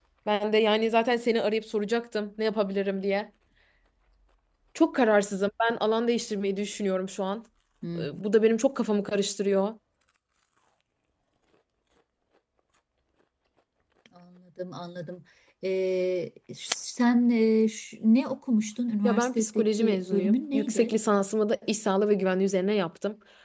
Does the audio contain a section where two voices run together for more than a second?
Yes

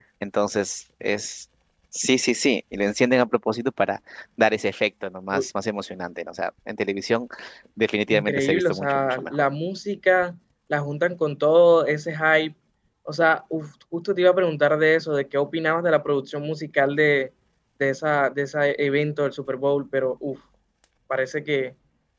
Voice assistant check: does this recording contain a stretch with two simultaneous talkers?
Yes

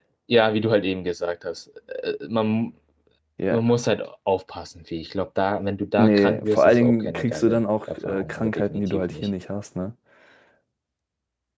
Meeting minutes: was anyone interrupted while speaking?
Yes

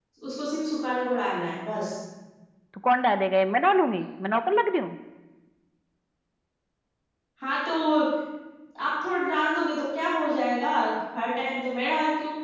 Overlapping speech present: No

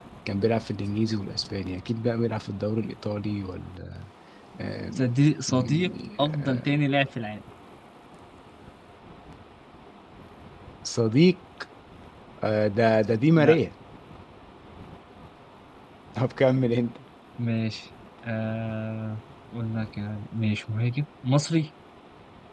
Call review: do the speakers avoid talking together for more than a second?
No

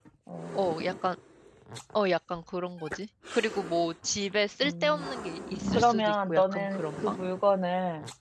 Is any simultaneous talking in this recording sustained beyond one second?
Yes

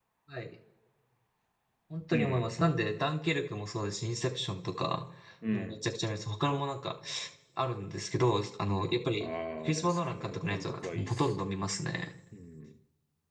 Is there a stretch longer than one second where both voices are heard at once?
Yes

